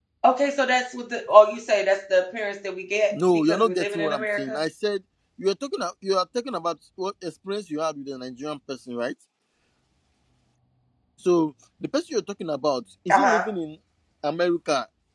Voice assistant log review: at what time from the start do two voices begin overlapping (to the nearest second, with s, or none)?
3 s